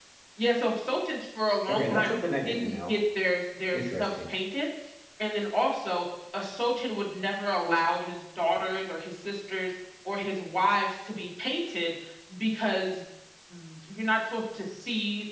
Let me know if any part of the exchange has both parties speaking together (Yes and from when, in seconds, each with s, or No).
Yes, from 1.7 s